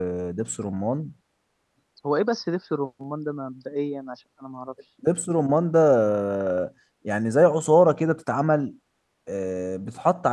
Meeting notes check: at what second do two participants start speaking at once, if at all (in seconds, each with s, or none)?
none